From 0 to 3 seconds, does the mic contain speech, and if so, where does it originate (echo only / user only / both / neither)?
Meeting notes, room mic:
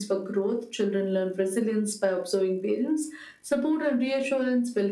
echo only